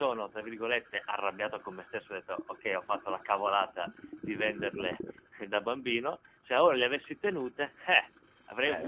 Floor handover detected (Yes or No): Yes